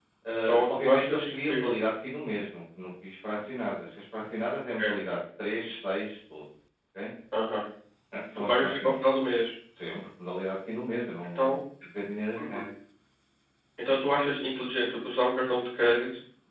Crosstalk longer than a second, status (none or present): present